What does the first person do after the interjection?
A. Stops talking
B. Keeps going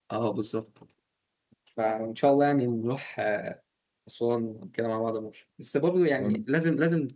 B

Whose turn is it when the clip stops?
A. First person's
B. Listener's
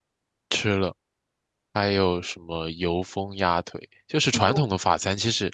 A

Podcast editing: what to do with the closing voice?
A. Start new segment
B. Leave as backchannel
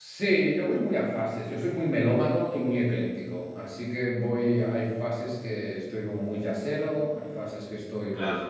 B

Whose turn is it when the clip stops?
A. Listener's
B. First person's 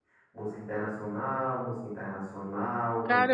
A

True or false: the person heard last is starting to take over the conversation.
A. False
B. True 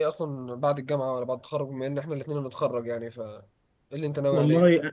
B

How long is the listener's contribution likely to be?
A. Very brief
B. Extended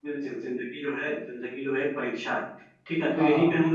A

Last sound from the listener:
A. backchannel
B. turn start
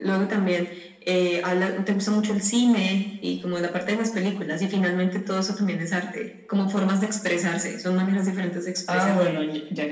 B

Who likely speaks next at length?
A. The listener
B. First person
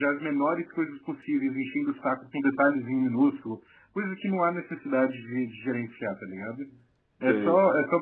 B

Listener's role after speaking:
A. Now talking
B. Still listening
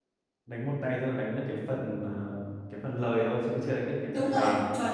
A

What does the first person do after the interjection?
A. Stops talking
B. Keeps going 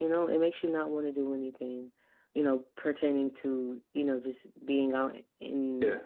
B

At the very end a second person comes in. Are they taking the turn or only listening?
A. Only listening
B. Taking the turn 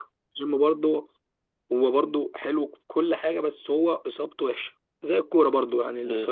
A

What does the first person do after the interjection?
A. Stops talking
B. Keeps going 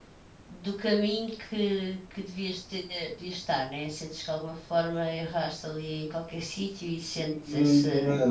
A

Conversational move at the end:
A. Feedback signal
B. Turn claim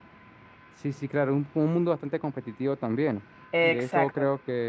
A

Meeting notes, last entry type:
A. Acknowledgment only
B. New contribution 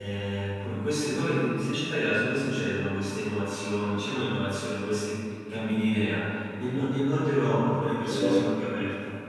A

